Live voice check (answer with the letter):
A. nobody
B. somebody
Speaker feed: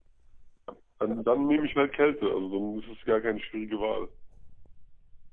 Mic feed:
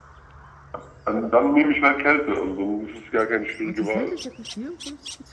B